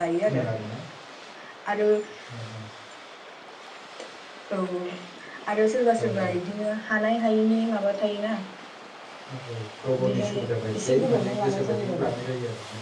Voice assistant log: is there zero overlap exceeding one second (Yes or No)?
No